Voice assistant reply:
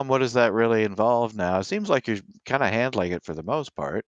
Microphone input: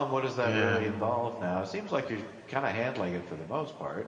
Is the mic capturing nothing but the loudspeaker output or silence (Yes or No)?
No